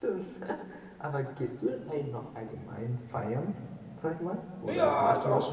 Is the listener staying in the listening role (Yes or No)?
No